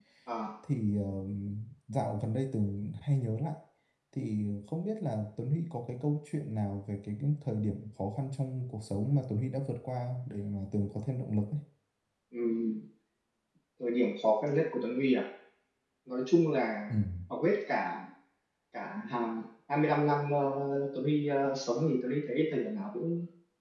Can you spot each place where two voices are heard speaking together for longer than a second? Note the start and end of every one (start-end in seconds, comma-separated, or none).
none